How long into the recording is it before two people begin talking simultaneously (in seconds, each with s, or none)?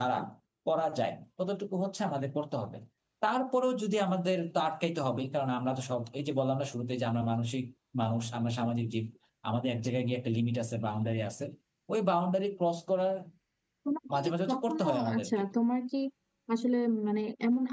14.1 s